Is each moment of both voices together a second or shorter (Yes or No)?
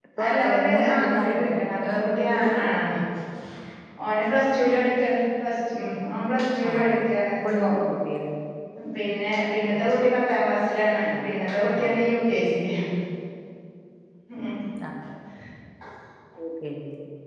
No